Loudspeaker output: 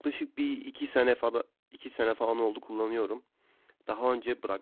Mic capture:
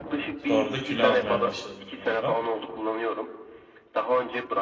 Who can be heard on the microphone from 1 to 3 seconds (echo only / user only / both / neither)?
both